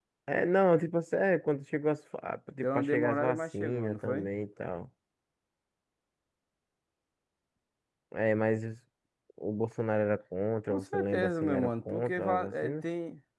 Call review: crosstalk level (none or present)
present